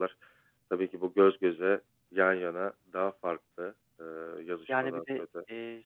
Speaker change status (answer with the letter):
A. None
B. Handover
B